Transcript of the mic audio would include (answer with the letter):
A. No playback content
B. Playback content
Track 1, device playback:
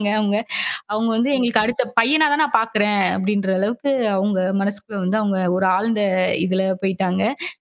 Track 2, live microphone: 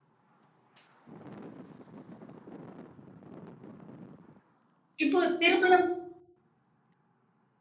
A